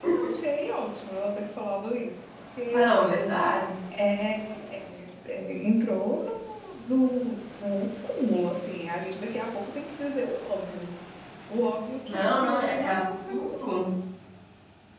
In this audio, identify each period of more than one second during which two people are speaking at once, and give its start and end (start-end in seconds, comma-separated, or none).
12.1-13.9